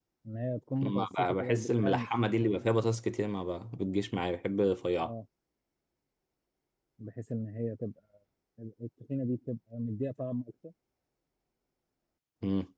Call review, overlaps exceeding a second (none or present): present